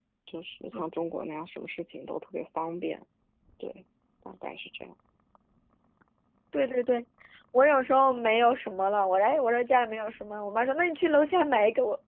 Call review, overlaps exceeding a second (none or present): none